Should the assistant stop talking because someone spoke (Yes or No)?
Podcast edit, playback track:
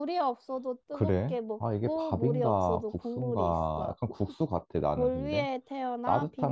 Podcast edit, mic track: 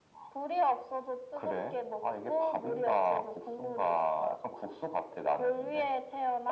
No